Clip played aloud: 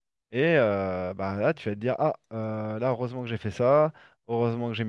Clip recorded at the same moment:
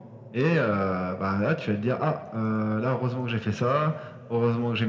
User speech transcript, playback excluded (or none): none